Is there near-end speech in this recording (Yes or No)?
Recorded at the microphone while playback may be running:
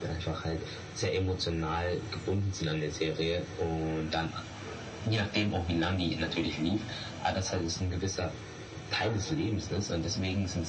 No